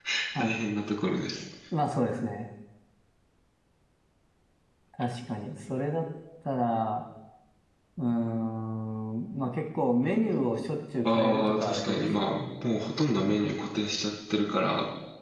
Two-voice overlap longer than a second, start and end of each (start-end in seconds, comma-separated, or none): 11.1-12.3